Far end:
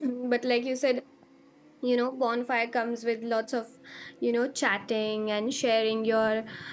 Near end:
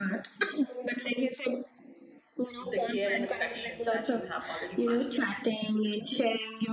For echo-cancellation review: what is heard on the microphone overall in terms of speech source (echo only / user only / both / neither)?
both